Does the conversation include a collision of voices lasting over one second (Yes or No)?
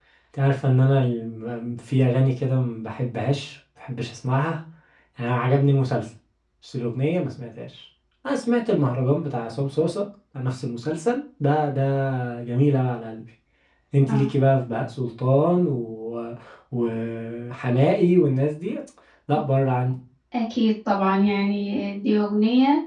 No